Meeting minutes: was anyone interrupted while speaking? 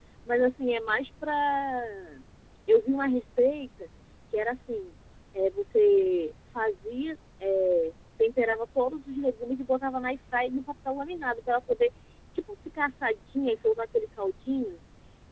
No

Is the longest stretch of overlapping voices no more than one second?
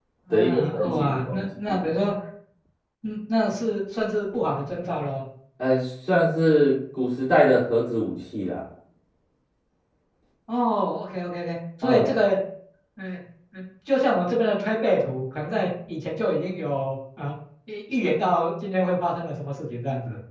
No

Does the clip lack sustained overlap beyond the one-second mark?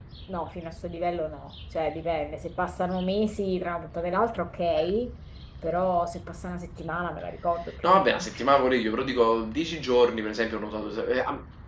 Yes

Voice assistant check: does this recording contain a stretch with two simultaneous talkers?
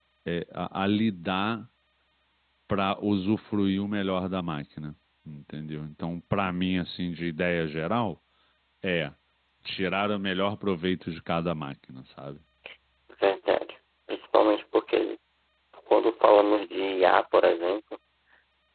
No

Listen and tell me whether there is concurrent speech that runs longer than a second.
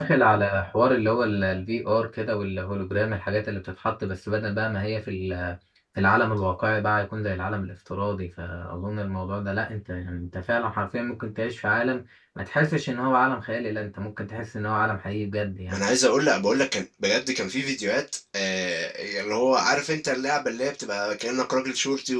No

